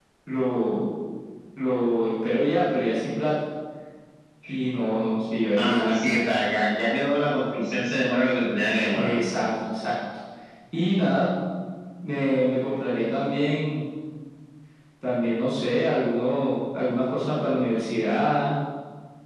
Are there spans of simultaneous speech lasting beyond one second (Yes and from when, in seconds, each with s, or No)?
No